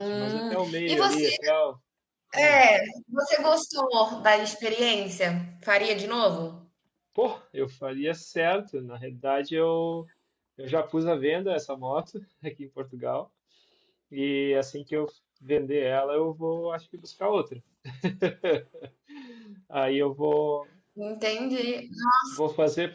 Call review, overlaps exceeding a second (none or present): present